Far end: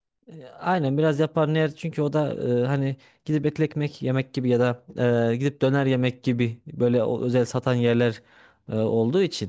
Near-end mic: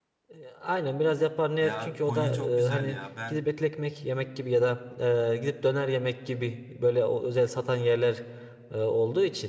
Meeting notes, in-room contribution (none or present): present